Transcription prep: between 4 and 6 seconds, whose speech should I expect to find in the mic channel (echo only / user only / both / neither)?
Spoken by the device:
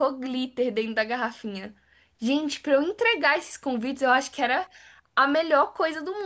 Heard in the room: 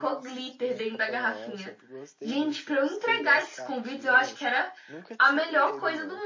both